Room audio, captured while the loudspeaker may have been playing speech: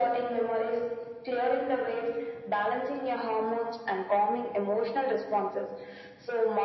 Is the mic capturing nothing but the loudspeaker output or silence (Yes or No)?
Yes